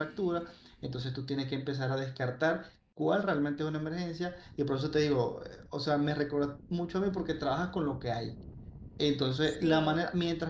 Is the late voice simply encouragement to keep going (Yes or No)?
Yes